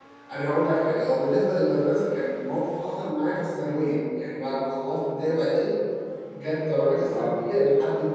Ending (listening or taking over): listening